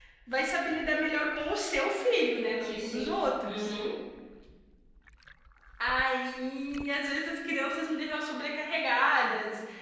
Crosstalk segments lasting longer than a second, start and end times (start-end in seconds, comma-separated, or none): 2.4-3.7